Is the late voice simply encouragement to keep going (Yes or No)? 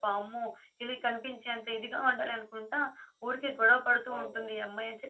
Yes